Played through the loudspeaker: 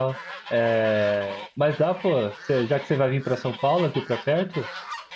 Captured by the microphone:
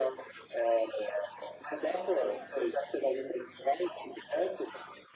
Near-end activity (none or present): present